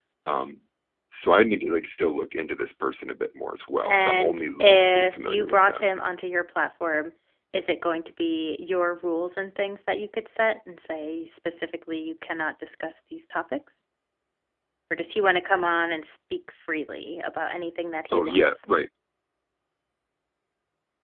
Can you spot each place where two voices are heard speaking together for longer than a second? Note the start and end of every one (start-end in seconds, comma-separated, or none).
3.8-5.9